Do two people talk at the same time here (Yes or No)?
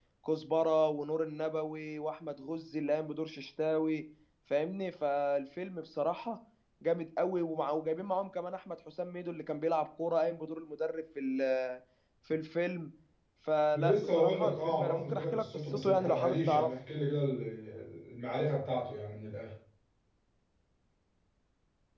Yes